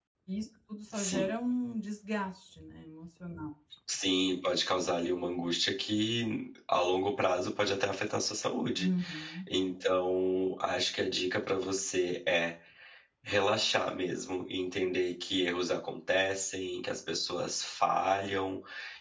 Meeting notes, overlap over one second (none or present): none